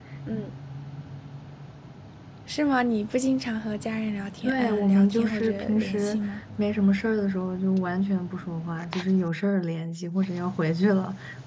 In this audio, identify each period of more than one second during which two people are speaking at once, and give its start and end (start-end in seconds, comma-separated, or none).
4.4-6.2